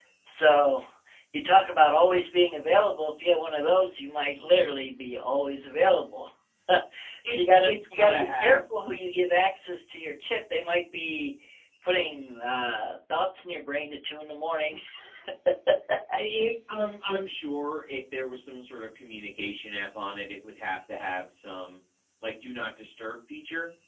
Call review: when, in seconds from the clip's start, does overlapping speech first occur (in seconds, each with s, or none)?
7.3 s